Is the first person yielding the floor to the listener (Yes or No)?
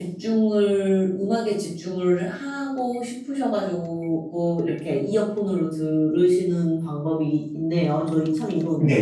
Yes